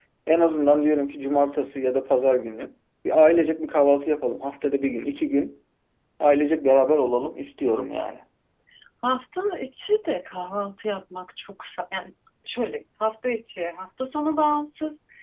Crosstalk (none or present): none